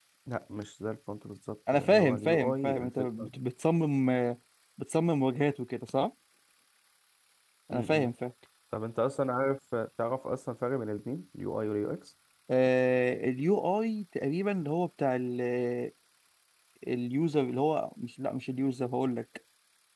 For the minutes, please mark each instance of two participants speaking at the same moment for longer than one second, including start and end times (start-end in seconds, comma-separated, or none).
1.7-3.3